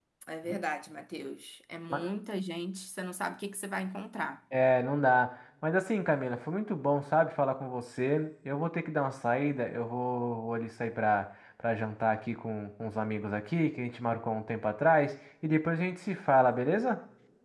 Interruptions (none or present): none